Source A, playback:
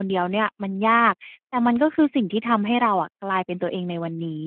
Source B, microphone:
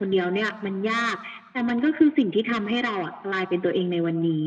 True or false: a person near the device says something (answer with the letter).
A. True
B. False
B